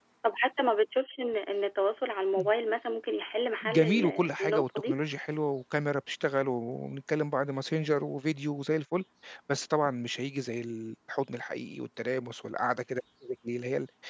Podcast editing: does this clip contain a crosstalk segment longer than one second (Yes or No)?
Yes